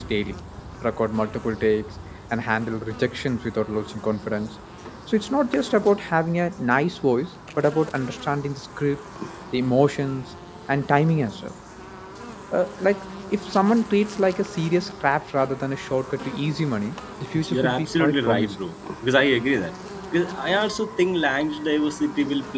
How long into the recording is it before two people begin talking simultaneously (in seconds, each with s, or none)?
17.3 s